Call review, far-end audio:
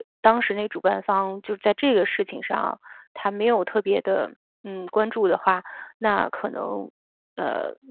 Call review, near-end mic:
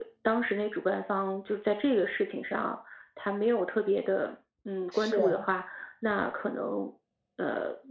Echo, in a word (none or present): present